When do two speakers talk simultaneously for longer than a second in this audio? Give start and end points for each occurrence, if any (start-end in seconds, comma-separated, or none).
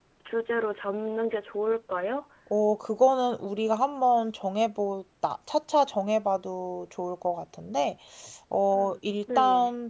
none